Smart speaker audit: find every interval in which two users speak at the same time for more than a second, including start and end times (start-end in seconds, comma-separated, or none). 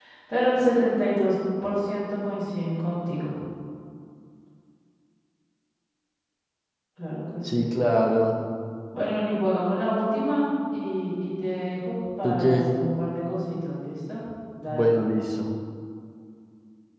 none